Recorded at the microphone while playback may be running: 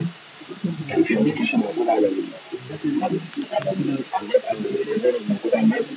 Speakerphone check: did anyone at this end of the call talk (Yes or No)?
No